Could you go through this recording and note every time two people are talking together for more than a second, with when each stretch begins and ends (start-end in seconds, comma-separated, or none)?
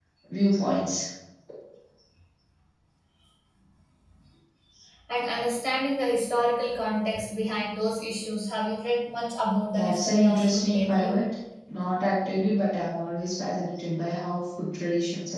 9.7-11.1